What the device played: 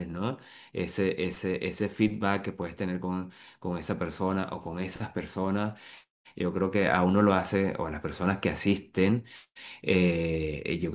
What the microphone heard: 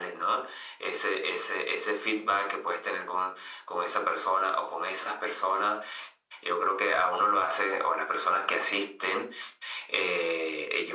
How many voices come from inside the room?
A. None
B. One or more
A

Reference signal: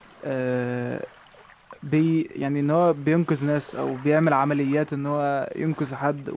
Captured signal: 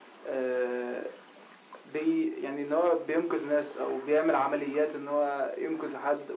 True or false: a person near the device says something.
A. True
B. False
B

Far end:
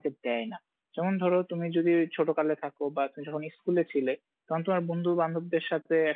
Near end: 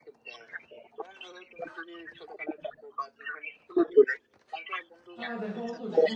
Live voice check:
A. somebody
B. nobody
A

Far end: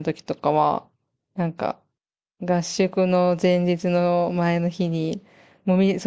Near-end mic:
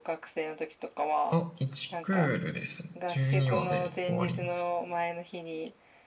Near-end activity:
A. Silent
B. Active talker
B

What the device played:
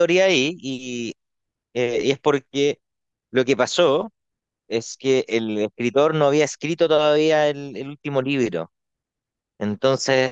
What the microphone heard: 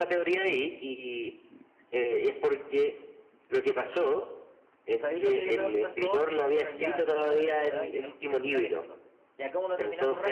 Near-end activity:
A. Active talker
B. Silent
A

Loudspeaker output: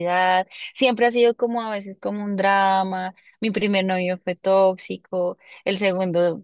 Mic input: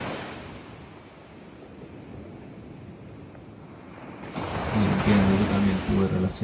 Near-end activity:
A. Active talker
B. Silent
A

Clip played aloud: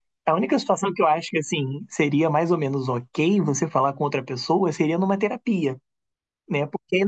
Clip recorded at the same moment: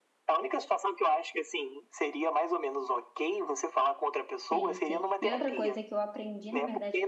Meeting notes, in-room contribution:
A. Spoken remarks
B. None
A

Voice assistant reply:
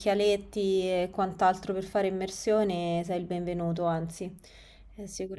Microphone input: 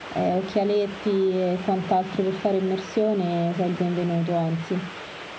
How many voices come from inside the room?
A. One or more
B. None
B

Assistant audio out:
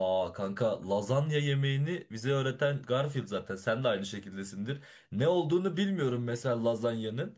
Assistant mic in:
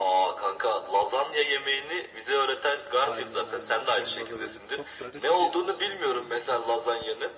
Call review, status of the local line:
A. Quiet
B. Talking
B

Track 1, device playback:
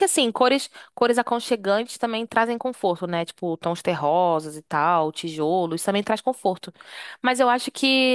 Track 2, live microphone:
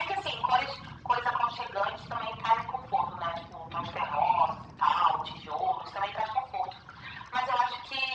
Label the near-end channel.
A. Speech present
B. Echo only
B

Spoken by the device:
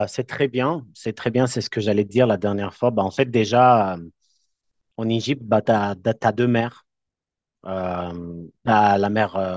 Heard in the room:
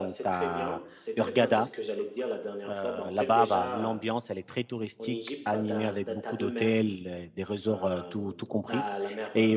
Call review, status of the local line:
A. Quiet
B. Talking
B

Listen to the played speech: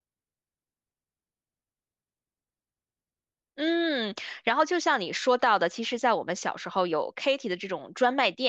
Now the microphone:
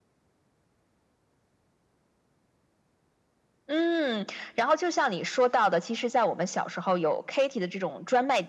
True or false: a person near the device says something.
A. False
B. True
A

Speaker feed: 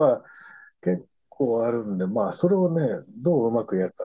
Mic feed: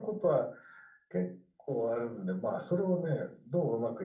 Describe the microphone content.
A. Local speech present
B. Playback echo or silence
B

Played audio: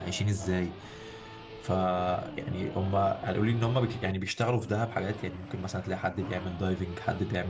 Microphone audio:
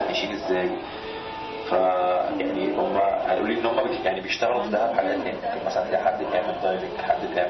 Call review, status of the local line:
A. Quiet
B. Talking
B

